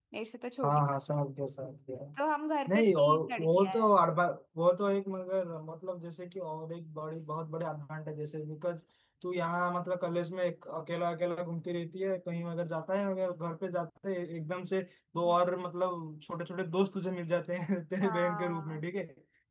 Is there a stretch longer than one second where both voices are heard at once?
Yes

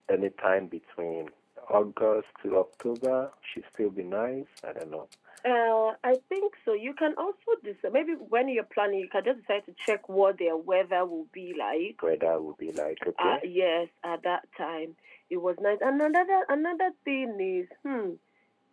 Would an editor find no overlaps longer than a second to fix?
Yes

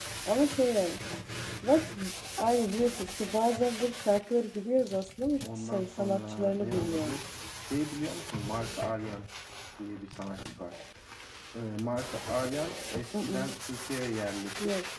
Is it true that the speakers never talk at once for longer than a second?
No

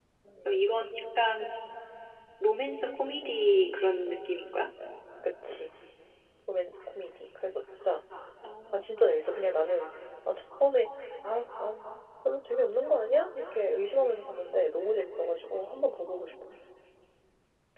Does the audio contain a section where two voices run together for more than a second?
No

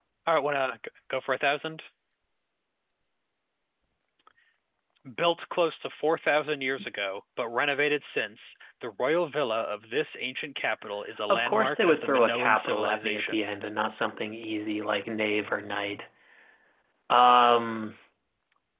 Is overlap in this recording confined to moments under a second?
No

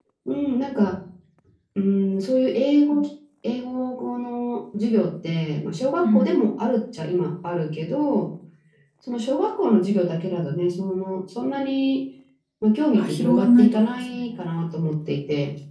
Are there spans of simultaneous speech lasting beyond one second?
Yes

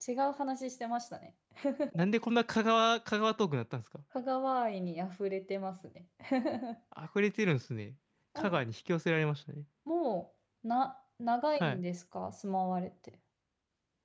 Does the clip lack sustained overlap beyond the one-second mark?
Yes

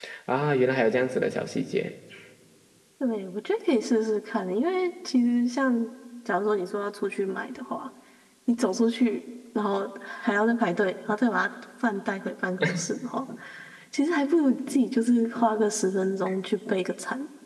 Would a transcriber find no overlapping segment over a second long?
Yes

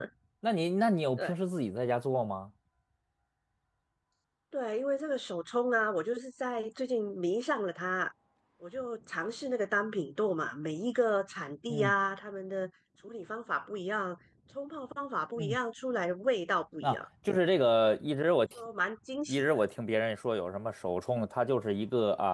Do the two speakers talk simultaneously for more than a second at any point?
No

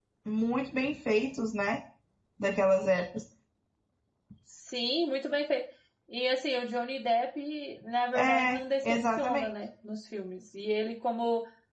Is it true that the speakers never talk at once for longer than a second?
No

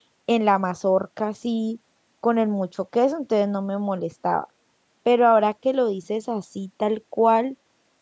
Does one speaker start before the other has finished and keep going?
No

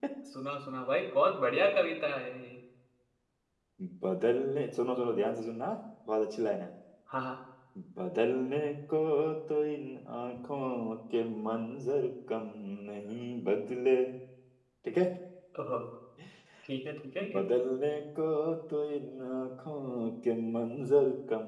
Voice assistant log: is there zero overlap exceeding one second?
Yes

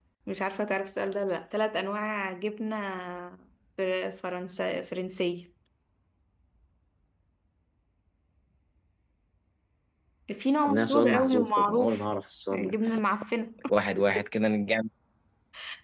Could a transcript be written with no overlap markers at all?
No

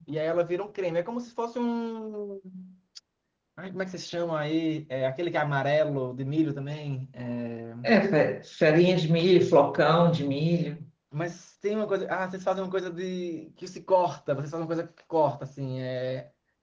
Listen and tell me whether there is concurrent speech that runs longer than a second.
No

